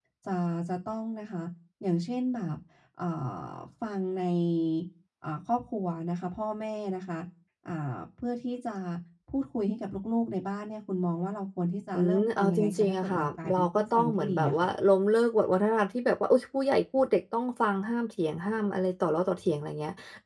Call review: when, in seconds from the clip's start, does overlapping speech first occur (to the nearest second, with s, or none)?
12 s